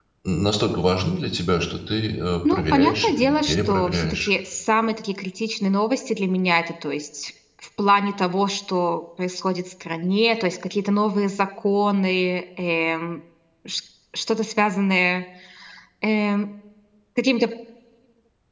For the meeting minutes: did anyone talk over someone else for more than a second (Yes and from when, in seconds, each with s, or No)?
Yes, from 2.4 s